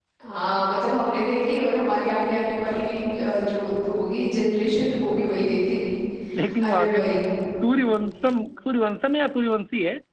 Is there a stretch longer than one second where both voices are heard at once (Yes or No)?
No